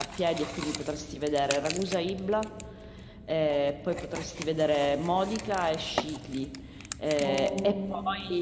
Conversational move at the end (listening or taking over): listening